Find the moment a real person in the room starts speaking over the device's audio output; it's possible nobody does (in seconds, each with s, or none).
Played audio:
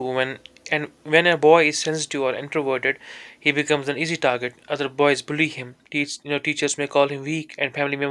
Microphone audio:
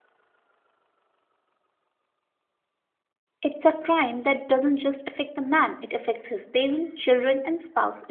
3.4 s